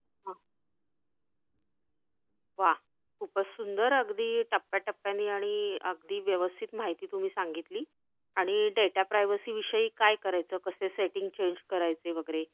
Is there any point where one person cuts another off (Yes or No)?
No